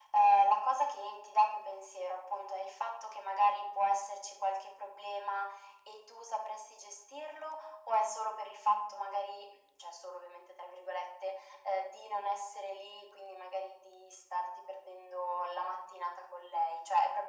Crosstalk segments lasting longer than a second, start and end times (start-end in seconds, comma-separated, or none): none